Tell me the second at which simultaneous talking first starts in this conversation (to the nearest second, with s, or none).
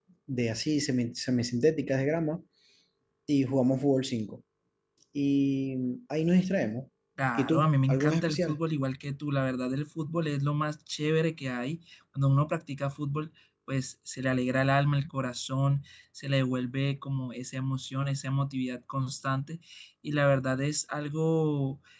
7 s